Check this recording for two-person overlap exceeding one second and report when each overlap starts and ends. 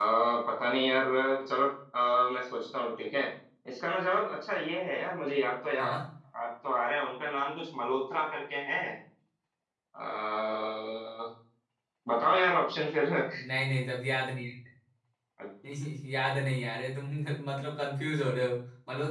none

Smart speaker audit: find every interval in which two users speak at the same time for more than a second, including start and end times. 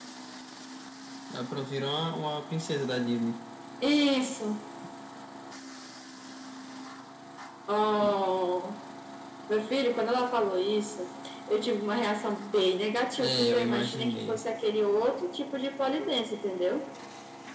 13.2-14.4

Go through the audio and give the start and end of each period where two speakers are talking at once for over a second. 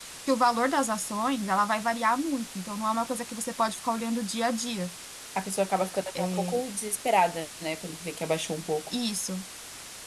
none

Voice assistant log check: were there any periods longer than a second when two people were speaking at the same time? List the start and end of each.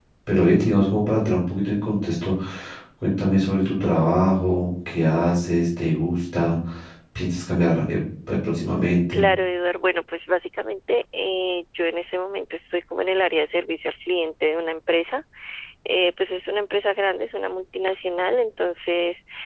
none

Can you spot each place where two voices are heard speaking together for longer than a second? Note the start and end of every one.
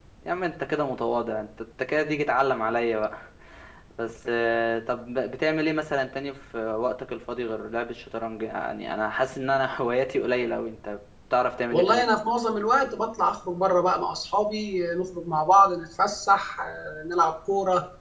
none

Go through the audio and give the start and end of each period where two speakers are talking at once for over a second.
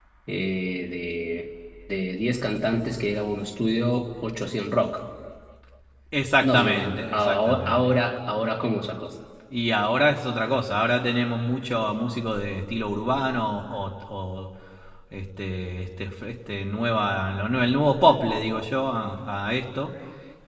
6.4-8.0

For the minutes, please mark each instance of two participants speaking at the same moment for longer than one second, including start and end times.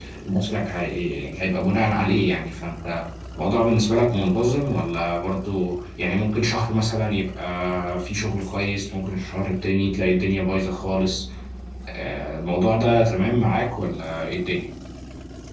none

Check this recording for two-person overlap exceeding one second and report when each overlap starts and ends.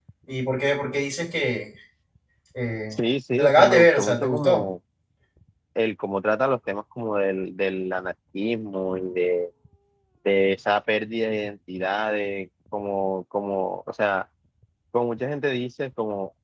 3.4-4.6

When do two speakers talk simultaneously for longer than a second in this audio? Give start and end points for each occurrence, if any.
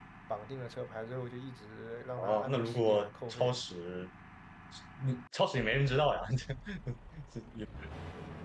2.2-3.5

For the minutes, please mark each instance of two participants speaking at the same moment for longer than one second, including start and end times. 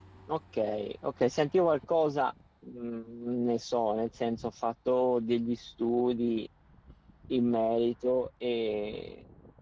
none

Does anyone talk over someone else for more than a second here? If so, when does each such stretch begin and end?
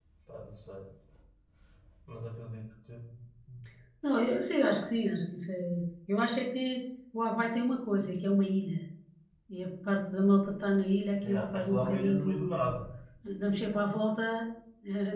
11.2-12.6

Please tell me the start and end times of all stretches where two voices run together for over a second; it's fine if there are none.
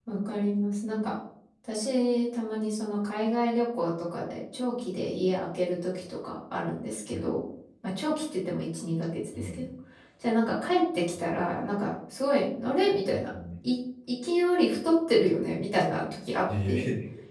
none

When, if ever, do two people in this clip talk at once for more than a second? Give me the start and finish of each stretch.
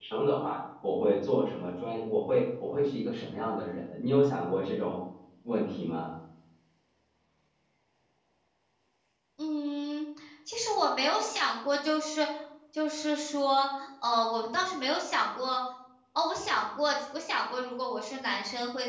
none

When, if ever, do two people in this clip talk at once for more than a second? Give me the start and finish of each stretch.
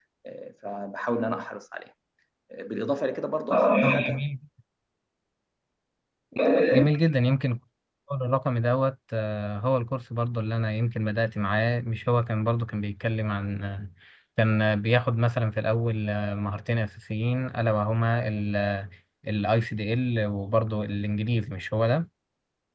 none

